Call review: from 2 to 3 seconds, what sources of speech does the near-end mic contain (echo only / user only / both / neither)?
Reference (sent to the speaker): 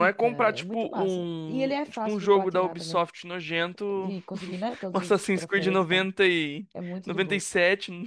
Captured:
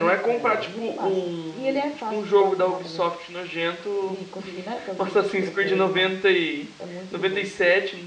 echo only